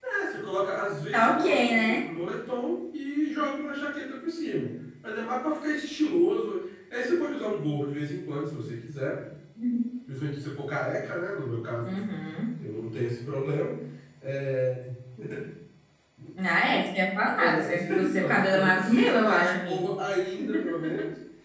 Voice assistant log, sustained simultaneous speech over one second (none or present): present